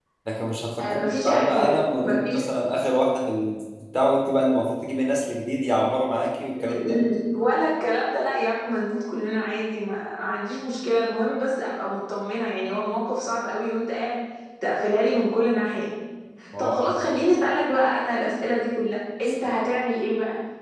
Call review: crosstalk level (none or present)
present